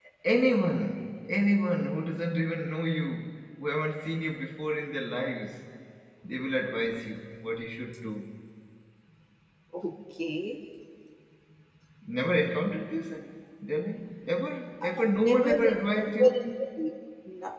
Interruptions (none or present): present